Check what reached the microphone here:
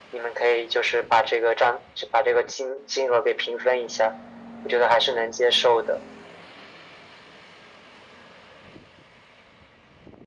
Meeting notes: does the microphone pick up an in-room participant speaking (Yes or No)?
No